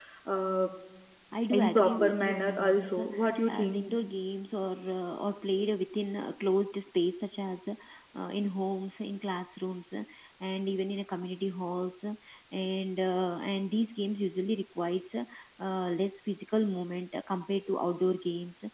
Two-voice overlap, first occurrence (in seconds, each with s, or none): 1.5 s